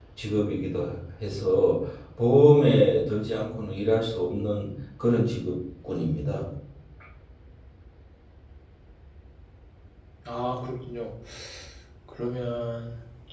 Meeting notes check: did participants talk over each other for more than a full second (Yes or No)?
No